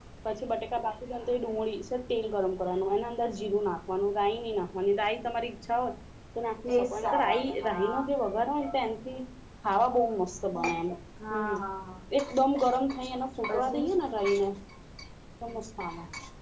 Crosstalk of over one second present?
Yes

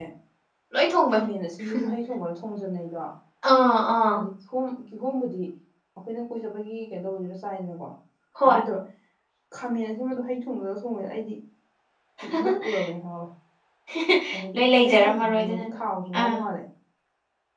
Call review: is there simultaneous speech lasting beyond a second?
Yes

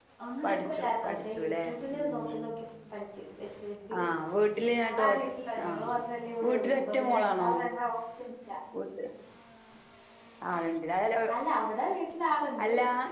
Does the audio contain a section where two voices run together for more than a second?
Yes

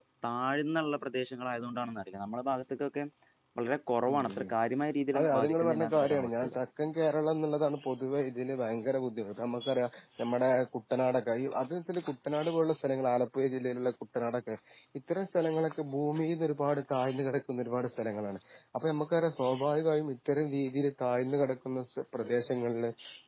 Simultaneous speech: Yes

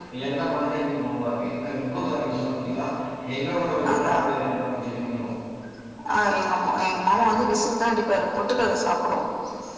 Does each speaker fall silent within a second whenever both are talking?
Yes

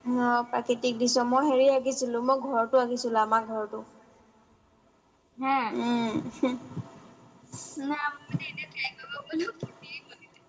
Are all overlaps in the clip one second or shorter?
Yes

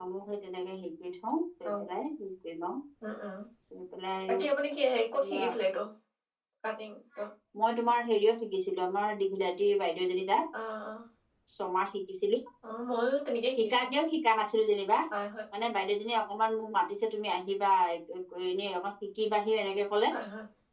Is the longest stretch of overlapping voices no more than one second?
Yes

